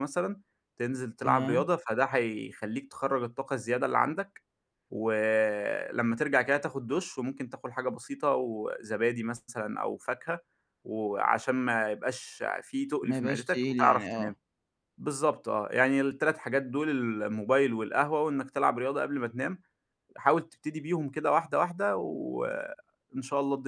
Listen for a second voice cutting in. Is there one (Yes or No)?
Yes